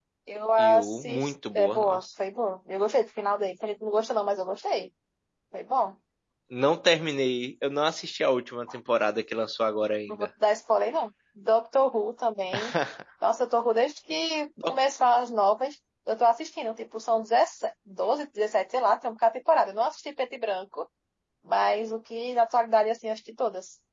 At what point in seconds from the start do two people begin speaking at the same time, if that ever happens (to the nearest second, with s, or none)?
1 s